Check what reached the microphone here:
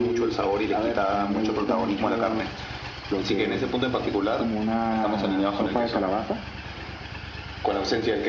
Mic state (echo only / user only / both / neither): echo only